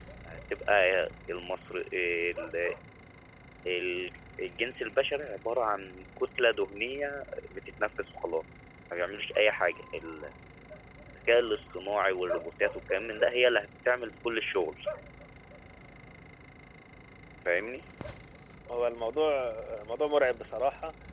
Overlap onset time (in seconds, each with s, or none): none